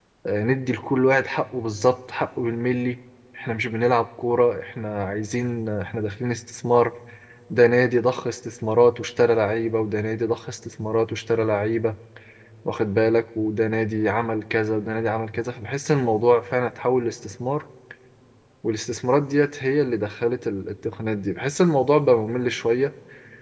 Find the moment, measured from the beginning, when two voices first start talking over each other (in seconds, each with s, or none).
none